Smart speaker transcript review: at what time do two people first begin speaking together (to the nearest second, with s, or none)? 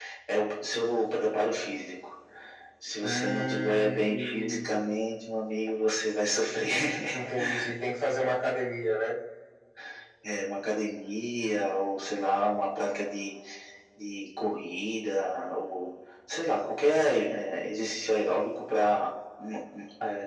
3 s